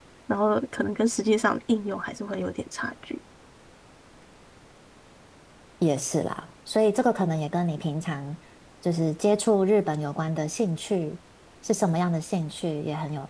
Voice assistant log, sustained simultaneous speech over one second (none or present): none